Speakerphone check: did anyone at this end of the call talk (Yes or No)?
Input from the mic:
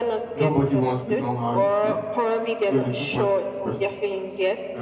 Yes